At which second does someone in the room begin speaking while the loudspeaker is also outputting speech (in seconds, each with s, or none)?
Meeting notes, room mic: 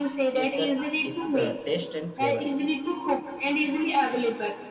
0.3 s